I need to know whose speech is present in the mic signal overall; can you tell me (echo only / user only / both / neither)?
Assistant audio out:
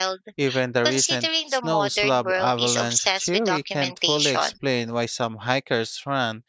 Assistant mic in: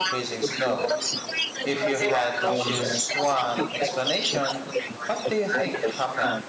both